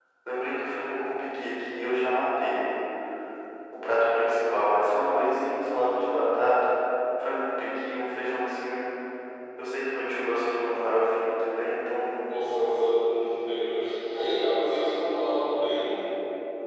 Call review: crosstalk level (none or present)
none